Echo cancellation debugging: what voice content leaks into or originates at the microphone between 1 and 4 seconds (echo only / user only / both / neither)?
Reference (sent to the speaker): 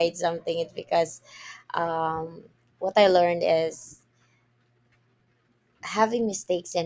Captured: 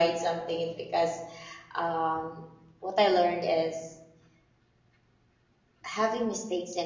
echo only